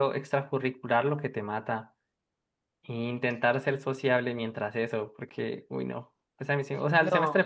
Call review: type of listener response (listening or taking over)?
listening